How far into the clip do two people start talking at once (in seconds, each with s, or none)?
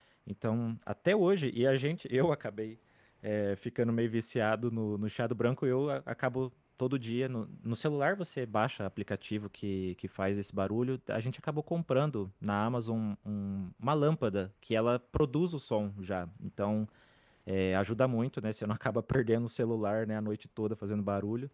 none